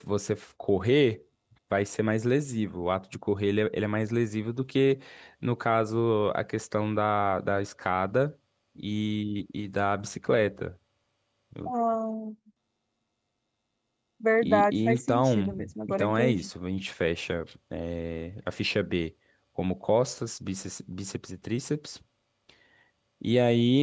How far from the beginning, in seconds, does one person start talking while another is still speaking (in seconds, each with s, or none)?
14.4 s